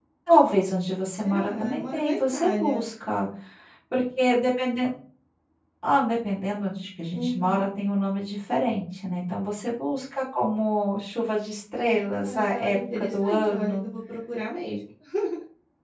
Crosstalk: present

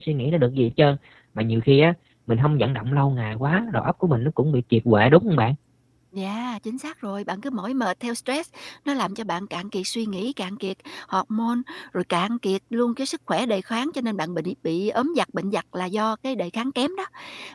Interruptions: none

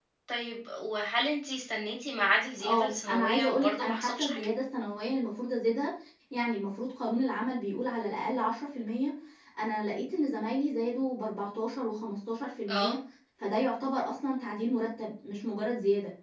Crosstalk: present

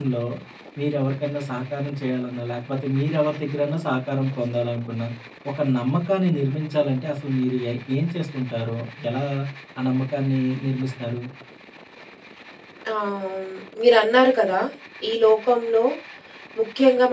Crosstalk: none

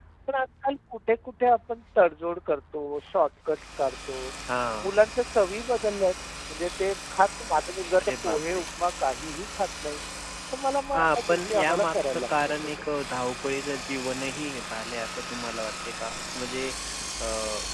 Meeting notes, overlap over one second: present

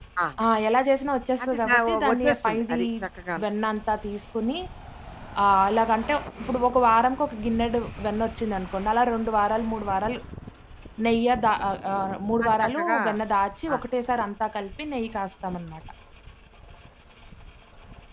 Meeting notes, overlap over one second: present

